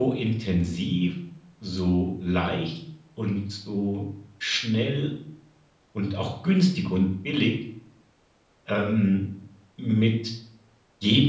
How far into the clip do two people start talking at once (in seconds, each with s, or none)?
none